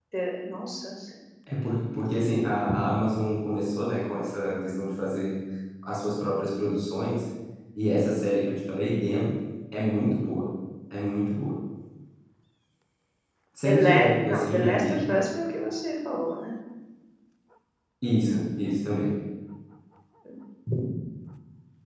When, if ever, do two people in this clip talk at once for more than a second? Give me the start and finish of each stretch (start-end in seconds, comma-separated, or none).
13.6-15.0